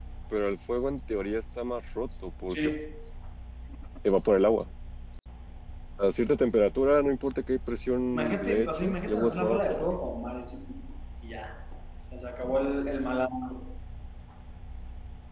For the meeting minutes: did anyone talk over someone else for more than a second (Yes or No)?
Yes